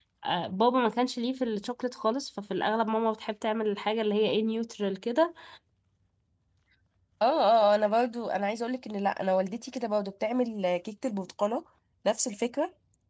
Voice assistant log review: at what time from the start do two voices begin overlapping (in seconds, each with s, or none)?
none